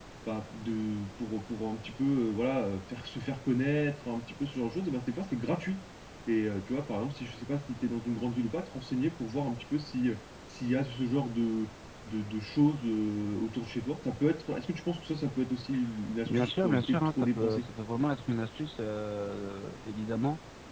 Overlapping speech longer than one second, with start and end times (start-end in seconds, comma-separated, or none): 16.3-17.6